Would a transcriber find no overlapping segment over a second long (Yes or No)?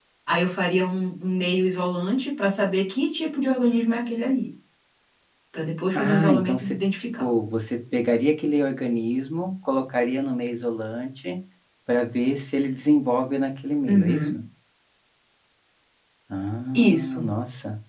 No